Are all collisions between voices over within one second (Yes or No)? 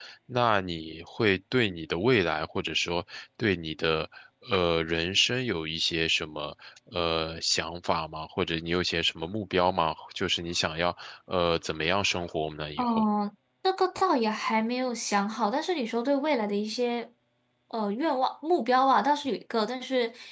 Yes